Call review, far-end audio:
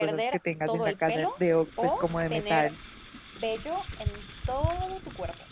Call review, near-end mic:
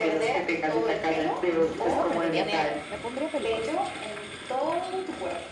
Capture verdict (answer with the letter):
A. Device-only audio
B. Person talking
B